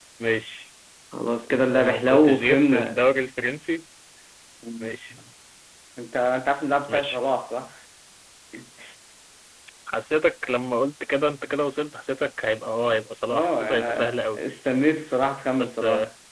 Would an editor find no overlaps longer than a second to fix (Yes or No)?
No